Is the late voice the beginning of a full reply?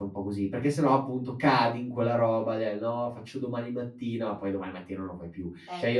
No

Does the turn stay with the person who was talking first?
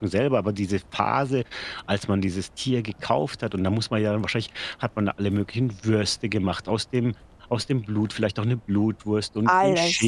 Yes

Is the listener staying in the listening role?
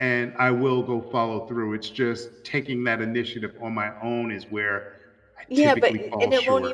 No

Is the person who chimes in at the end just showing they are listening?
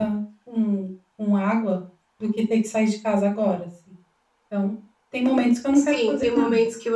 No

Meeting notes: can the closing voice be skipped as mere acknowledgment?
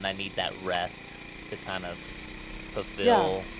Yes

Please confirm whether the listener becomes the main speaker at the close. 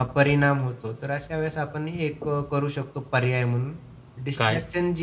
No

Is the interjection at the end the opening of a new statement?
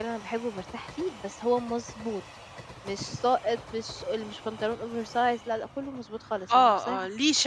Yes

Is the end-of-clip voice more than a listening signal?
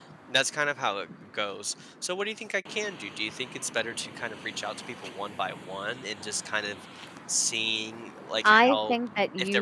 Yes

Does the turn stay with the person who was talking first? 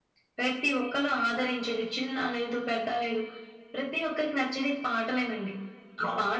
Yes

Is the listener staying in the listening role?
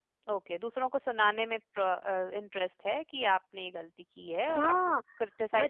No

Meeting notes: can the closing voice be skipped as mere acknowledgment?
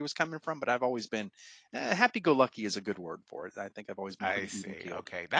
No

